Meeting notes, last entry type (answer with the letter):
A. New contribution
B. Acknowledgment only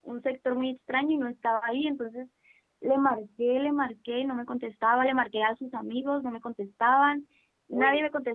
B